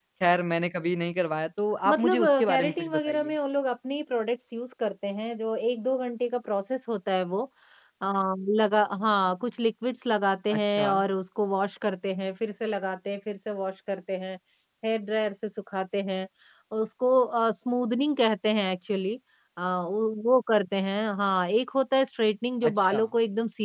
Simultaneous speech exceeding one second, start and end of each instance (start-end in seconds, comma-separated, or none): 1.9-3.3